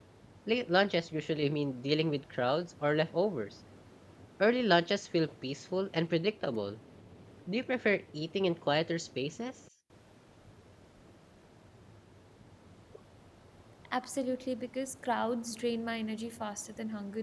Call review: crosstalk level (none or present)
none